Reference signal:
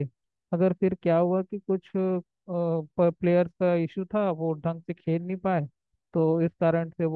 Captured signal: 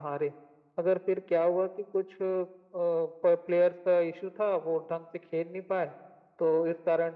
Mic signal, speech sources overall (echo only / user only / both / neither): echo only